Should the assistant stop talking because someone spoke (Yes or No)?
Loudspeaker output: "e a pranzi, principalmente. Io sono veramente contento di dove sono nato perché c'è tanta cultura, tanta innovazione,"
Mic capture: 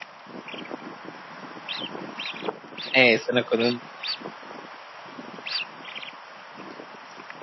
Yes